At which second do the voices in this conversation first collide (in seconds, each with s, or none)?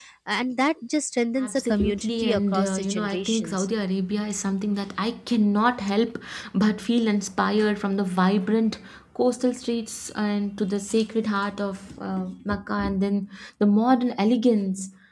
1.4 s